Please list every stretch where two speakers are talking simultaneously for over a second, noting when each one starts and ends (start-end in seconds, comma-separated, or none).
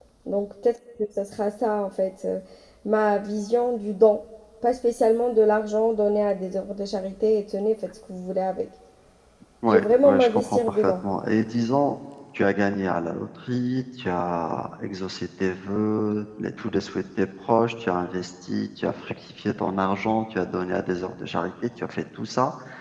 9.7-10.9